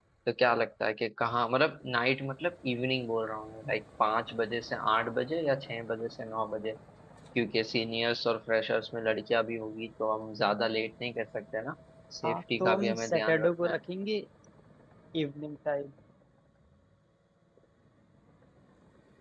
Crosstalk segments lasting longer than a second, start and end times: 12.2-13.8

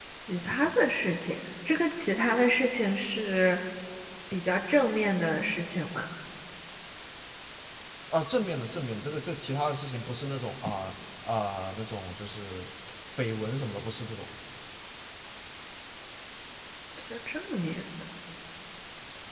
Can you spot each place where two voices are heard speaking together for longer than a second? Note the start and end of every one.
none

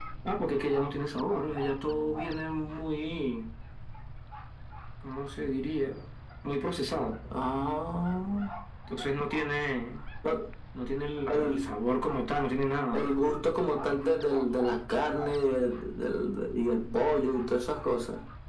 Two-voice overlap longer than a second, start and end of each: none

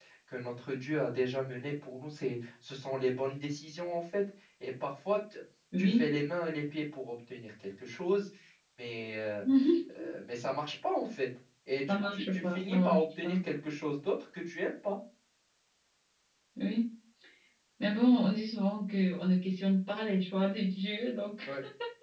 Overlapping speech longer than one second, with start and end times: 11.9-13.4

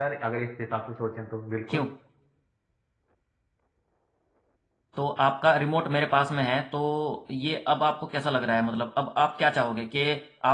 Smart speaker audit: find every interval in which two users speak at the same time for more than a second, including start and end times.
none

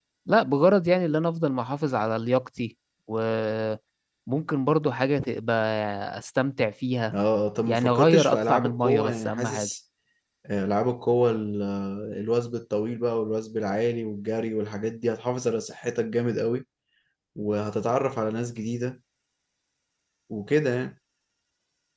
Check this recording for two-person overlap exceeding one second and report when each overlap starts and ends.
7.6-9.7

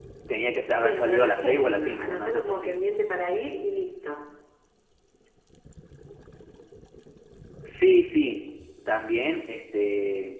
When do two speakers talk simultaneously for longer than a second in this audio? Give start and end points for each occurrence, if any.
0.8-2.8

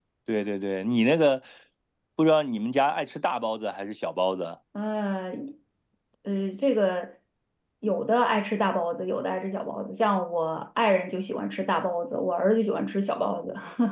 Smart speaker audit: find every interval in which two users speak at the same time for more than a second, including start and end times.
none

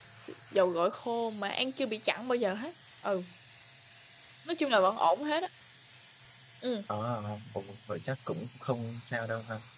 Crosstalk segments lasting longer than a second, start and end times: none

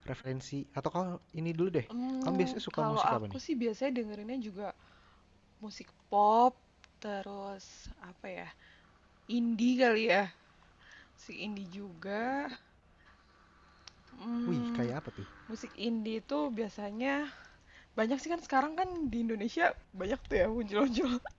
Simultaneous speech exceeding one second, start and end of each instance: 2.2-3.4

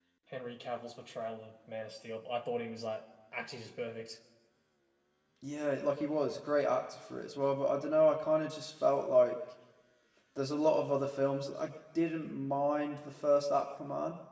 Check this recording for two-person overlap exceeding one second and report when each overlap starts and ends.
none

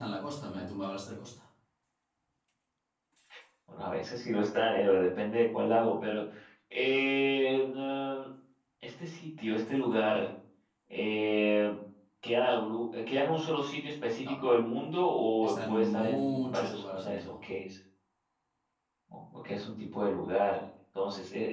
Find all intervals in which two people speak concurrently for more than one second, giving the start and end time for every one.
15.5-17.4

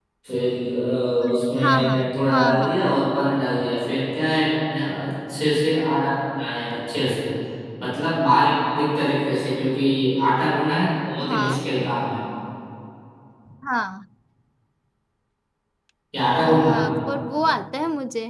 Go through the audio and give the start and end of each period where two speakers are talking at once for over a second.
1.3-3.0

